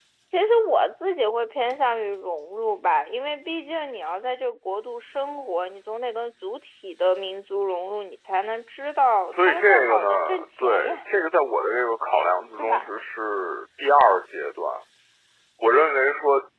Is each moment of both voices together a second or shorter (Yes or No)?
No